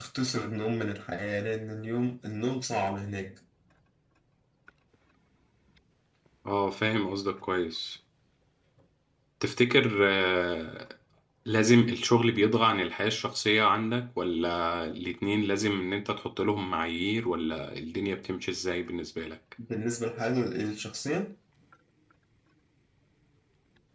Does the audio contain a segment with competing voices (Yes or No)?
No